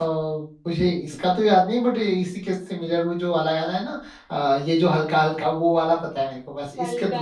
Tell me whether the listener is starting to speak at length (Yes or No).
Yes